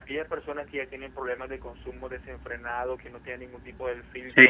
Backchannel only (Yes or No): Yes